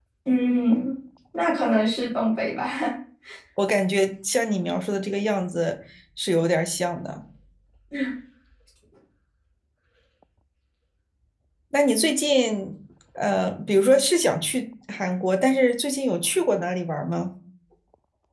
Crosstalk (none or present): none